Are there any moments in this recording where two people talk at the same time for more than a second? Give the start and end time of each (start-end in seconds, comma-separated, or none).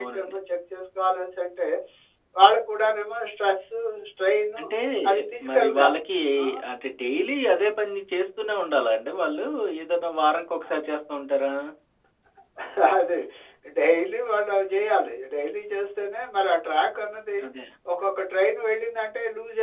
none